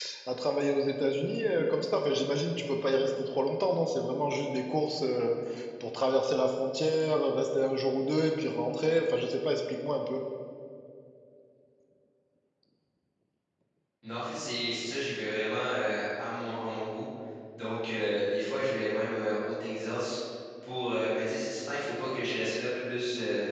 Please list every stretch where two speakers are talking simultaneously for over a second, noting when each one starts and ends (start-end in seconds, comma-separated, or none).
none